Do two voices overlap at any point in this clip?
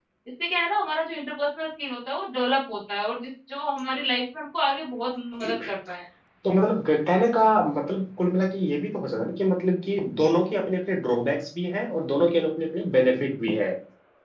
No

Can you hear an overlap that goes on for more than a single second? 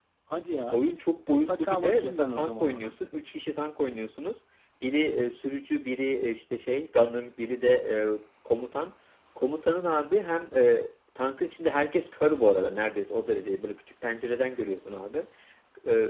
Yes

